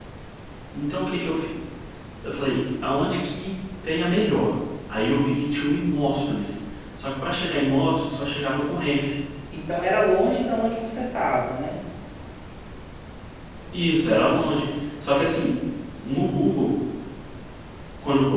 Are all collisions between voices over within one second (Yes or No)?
Yes